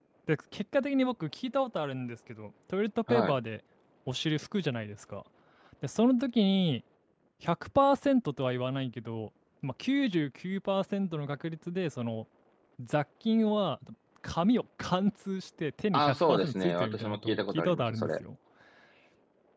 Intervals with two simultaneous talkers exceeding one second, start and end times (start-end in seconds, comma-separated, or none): 15.9-18.1